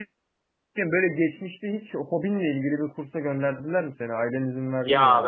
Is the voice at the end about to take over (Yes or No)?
Yes